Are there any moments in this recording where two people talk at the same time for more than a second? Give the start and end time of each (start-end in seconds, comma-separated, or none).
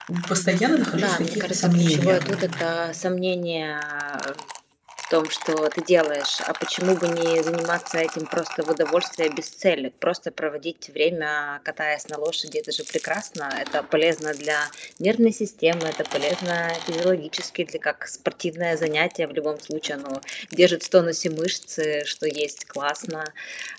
1.0-2.2